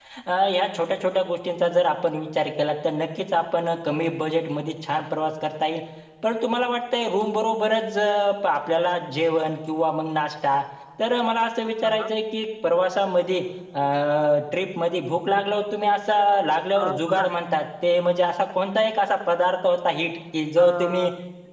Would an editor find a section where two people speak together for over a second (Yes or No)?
No